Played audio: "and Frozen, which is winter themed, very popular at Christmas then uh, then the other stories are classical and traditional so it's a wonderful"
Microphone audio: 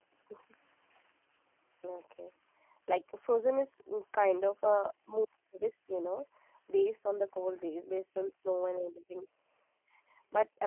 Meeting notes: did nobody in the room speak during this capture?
No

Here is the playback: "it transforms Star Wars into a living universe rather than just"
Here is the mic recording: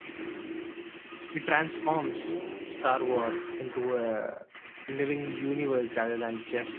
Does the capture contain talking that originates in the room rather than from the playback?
No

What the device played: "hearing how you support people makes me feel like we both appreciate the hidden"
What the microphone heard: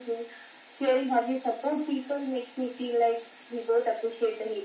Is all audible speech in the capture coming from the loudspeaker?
Yes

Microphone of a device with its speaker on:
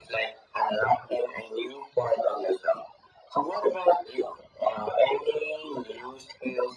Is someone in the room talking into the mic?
No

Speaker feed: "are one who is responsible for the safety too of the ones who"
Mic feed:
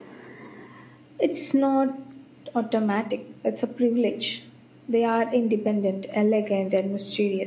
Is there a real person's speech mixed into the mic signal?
Yes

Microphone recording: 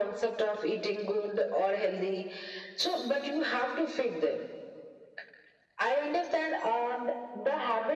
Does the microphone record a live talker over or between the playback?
No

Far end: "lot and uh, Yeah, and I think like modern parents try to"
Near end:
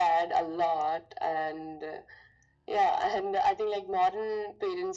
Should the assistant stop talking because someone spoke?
No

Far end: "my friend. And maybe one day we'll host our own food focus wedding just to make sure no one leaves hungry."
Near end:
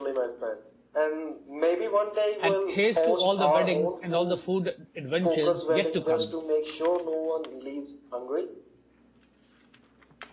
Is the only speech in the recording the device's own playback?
No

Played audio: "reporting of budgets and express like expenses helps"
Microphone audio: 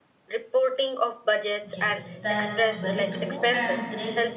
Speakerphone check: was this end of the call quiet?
No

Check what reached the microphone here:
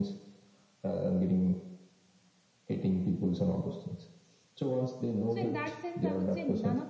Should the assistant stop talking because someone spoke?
Yes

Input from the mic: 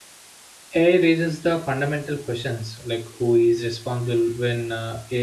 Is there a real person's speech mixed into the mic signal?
Yes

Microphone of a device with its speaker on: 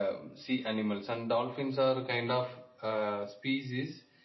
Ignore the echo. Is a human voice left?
No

